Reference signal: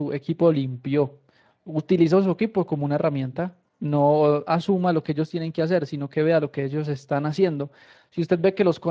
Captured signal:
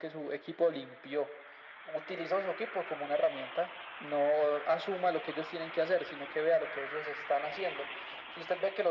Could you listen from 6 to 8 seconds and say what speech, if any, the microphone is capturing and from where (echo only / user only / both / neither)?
echo only